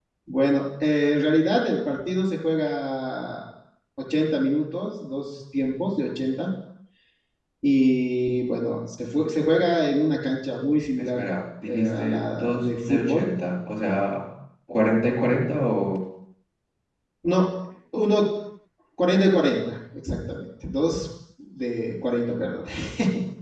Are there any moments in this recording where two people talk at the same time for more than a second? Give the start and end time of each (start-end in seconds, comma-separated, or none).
11.7-13.3